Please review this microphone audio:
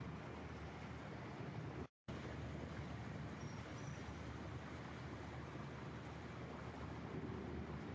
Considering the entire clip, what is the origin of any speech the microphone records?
neither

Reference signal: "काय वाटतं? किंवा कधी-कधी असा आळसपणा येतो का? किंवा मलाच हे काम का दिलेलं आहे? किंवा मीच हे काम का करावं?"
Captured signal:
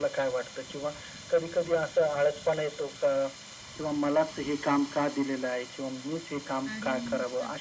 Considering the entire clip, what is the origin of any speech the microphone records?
both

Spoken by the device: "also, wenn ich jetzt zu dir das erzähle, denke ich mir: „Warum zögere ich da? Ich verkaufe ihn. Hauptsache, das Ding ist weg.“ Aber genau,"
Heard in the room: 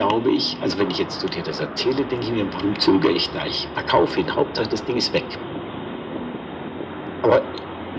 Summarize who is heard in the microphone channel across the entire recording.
echo only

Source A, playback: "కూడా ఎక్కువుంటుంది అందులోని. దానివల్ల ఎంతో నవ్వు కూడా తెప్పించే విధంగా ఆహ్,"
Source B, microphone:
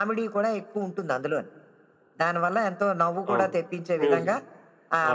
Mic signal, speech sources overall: both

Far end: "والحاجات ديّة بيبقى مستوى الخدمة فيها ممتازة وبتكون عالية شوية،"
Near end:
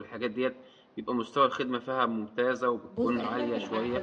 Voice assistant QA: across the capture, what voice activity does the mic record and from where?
both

